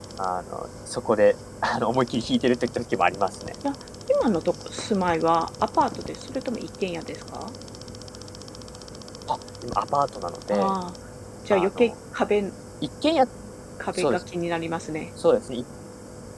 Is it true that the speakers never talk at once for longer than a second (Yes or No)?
Yes